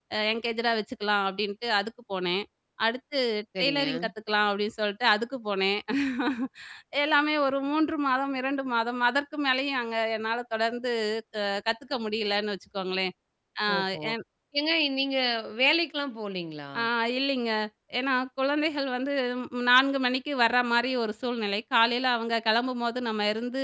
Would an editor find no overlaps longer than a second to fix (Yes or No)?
Yes